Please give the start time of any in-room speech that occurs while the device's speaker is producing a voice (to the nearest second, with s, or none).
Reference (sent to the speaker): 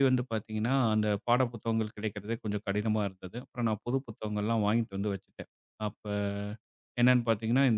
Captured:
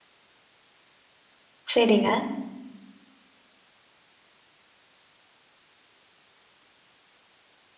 2 s